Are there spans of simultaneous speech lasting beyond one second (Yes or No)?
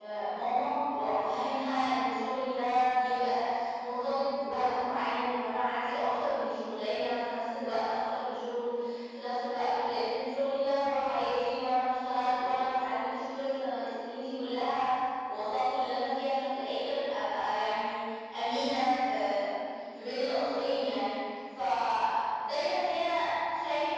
No